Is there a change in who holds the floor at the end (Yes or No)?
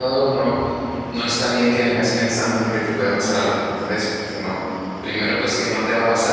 No